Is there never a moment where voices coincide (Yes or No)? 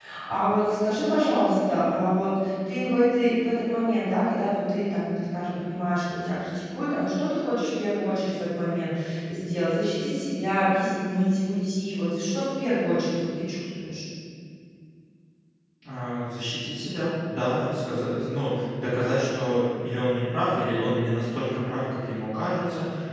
Yes